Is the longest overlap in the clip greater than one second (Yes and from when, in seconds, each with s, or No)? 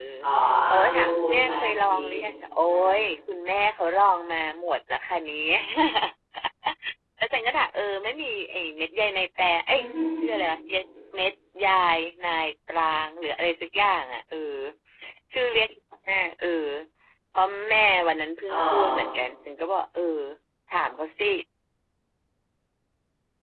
Yes, from 0.7 s